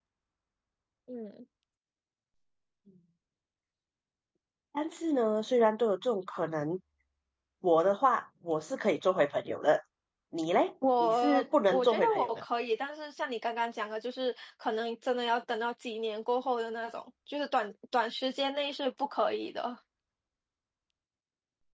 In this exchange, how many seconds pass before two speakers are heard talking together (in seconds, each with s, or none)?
11.0 s